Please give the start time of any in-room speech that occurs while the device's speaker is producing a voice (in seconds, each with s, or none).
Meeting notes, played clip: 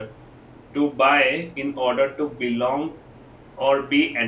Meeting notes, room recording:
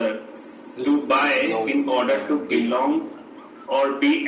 0.7 s